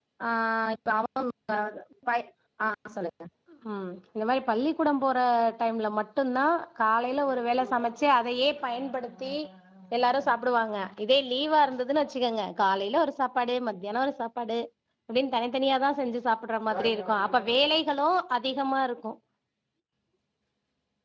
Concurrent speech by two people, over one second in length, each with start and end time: none

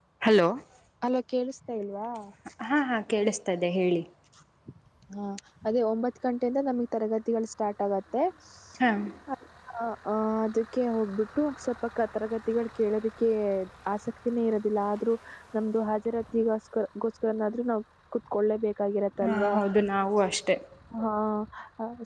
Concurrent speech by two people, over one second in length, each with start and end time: none

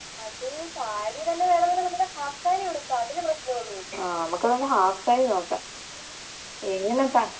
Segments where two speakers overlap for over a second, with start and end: none

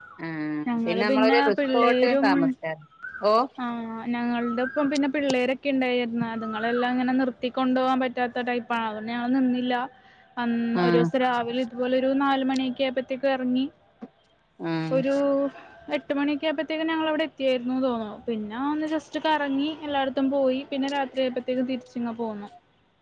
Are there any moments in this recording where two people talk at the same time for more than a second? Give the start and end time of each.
1.1-2.3

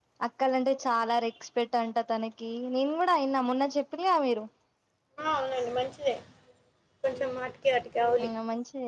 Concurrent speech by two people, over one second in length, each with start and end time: none

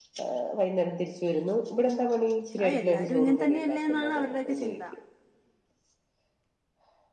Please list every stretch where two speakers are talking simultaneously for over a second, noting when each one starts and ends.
2.6-4.8

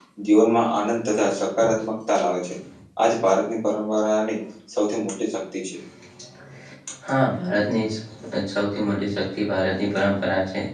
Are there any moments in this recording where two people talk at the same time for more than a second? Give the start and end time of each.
none

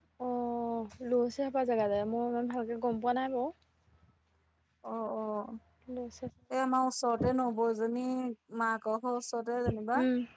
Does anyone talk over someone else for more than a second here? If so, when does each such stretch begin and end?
none

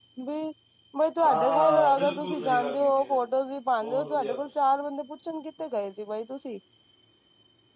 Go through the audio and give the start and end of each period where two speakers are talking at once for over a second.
1.2-2.9

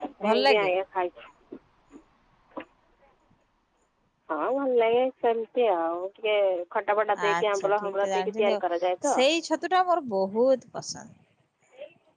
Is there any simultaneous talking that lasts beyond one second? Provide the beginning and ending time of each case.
7.3-8.6

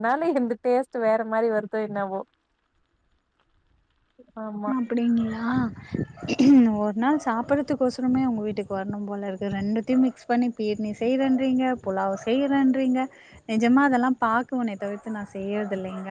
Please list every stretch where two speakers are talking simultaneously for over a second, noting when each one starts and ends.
none

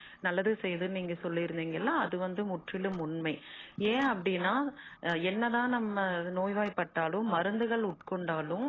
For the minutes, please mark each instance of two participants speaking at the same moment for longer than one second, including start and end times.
none

